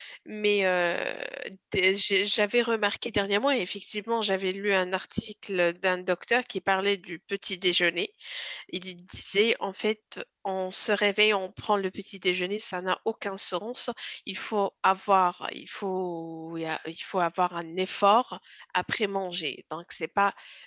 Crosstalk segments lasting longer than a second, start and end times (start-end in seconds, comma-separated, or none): none